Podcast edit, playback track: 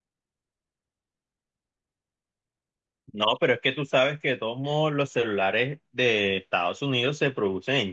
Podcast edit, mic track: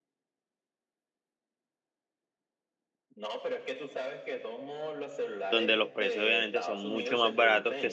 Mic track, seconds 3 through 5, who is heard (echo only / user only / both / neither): echo only